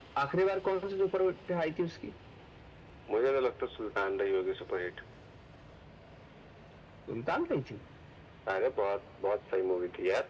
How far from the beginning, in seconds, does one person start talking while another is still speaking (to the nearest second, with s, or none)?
none